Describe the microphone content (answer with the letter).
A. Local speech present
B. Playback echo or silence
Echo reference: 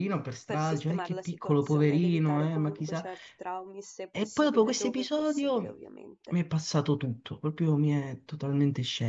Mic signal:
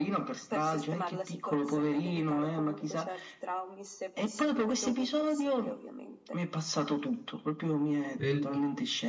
A